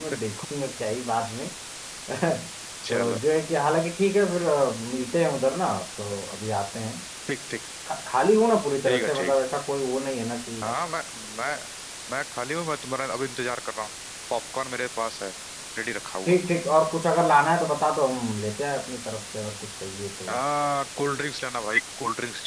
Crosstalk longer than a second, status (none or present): none